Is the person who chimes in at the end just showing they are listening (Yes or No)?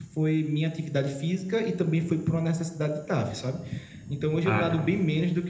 Yes